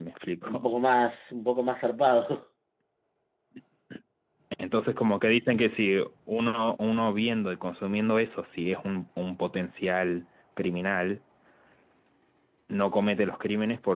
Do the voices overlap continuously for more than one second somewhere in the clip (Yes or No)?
No